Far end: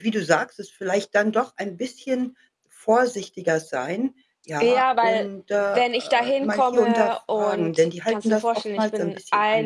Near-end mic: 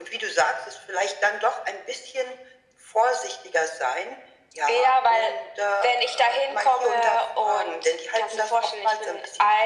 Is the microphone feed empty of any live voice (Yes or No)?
Yes